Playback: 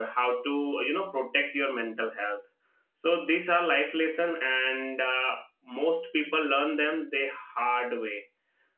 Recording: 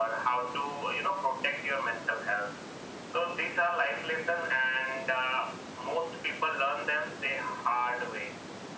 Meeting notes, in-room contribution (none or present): none